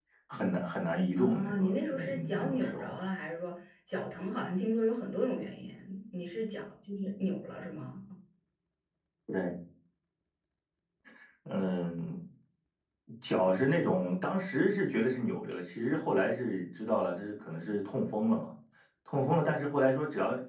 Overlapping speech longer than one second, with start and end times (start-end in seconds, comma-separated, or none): 1.2-3.0